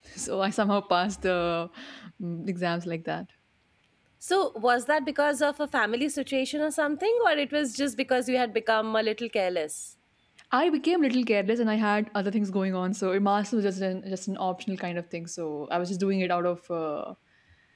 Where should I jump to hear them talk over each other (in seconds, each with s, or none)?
none